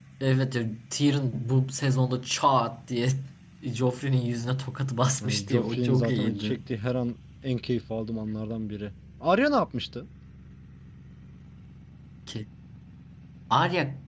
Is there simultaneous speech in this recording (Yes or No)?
Yes